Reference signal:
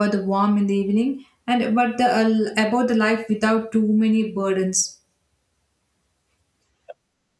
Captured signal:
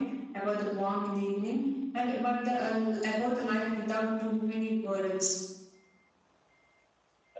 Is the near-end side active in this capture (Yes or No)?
No